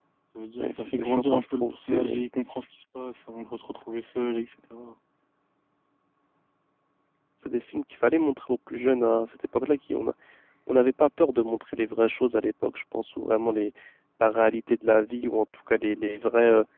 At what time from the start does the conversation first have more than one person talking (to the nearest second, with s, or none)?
1 s